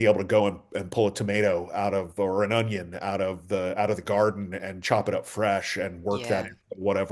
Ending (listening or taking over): listening